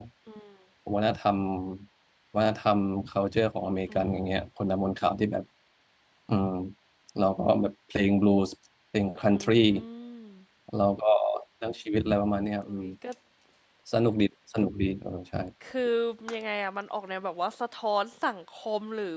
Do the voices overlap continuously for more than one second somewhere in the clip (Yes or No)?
No